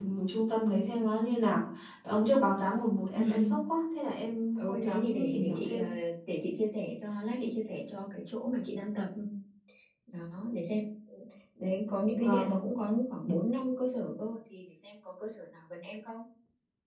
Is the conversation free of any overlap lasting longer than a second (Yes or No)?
No